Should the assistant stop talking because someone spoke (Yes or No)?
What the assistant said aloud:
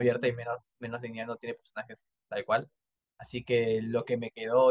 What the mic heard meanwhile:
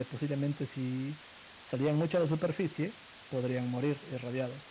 Yes